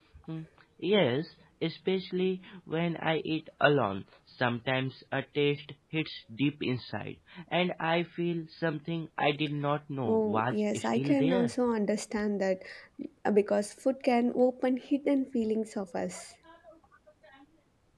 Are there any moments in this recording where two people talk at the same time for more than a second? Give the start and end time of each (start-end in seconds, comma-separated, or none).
10.1-11.5